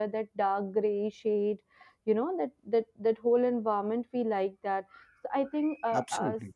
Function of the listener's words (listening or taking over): listening